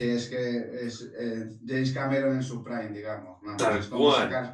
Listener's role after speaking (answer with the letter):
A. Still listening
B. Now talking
A